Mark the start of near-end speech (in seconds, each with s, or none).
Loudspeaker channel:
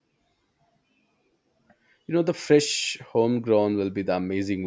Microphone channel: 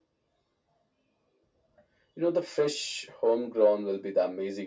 none